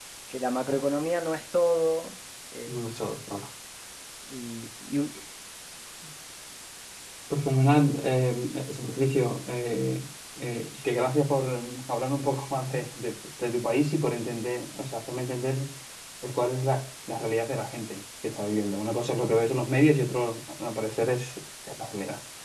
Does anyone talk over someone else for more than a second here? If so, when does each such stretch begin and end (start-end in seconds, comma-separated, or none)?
none